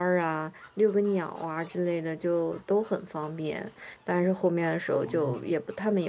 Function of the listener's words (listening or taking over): listening